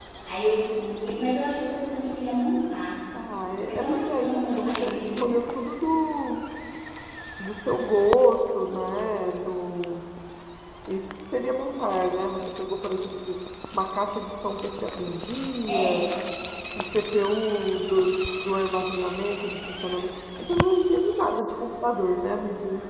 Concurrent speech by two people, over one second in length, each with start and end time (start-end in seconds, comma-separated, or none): 3.7-5.3